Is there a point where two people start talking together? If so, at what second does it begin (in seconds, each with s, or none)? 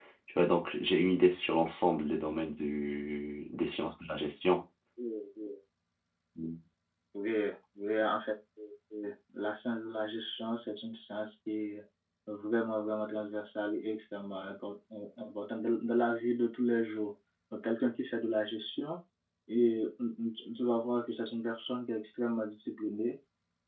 none